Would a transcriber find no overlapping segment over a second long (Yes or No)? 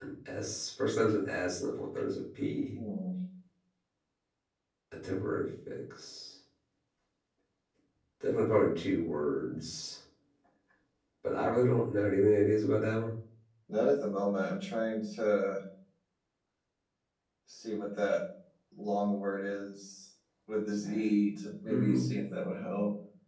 Yes